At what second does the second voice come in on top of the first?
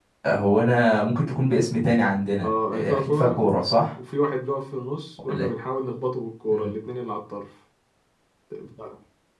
2.4 s

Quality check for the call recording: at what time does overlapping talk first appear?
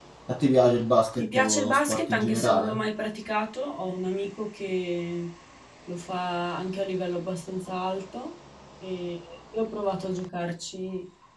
1.1 s

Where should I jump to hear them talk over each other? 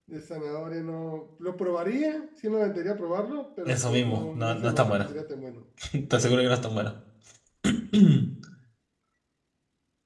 3.6 s

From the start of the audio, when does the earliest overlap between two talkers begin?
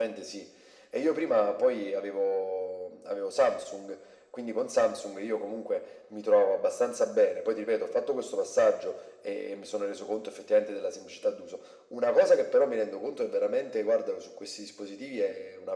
none

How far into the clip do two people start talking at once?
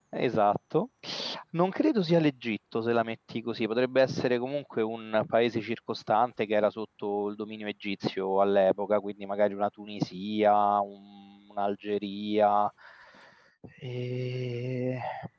none

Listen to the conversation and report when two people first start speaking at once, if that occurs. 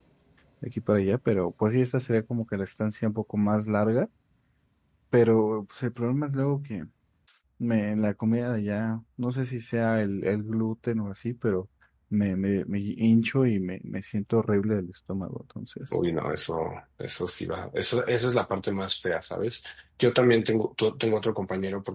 none

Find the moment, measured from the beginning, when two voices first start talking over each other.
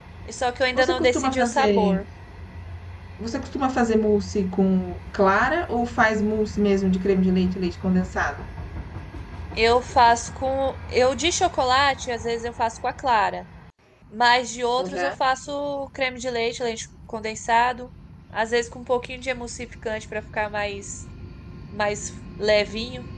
0.7 s

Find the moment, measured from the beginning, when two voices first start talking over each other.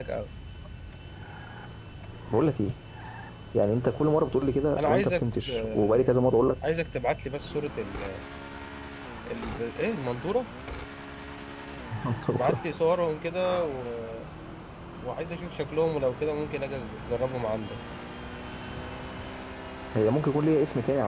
4.8 s

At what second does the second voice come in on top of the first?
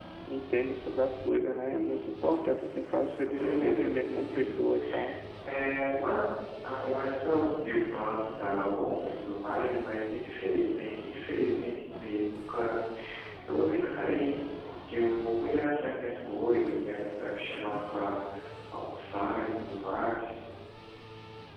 3.2 s

